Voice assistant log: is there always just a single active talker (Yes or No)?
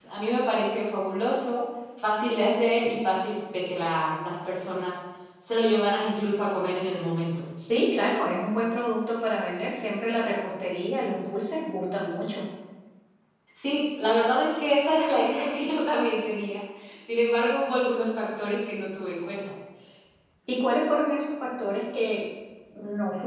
Yes